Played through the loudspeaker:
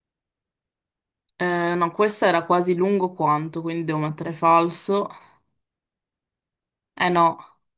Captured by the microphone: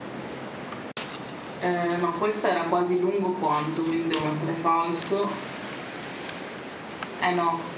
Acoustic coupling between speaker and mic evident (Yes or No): Yes